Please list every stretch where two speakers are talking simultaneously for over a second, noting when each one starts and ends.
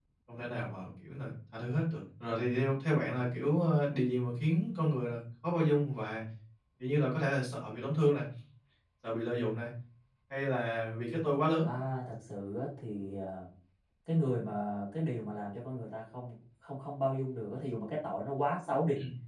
none

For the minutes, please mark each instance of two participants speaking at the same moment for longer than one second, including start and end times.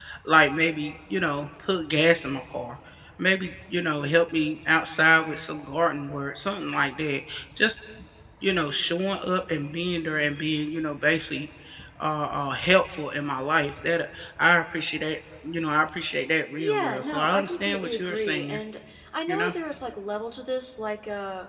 16.6-18.6

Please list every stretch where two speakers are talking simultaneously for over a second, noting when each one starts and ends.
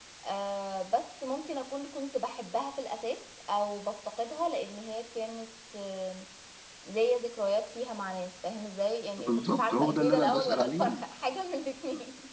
9.2-11.0

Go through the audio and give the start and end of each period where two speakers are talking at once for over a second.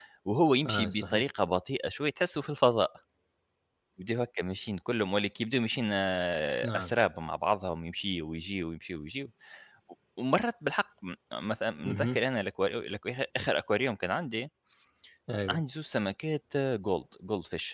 none

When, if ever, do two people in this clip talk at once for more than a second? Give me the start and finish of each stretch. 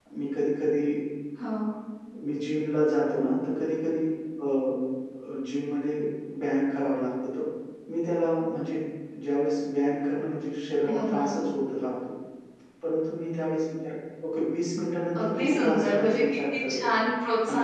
15.2-16.9

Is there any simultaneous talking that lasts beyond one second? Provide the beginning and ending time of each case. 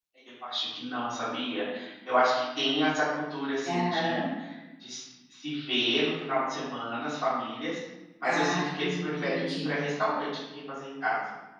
8.2-9.8

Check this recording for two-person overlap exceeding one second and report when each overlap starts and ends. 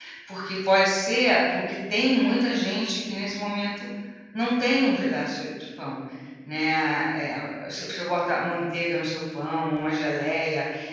none

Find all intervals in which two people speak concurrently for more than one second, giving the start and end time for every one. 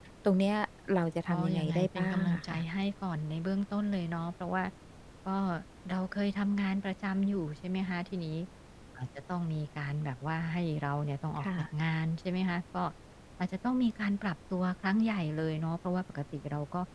1.3-2.6

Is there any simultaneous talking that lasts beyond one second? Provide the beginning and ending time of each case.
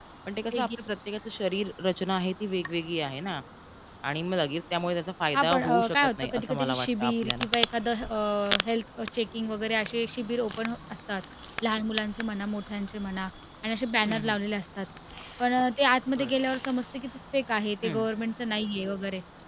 5.3-7.5

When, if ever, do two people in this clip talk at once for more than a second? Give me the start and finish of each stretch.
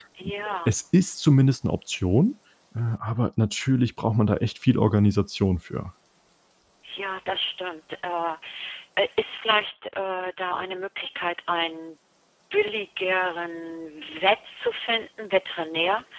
none

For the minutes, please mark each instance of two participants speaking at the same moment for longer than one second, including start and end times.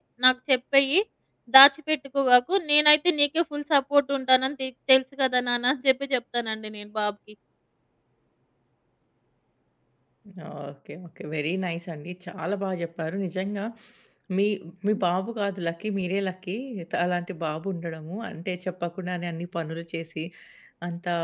none

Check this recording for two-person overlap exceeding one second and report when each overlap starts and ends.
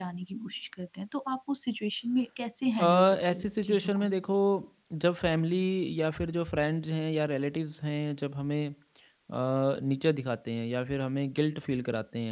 2.8-4.1

